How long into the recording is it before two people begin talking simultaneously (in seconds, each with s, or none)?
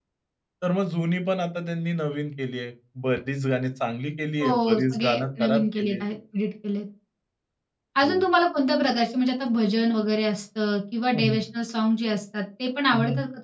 4.4 s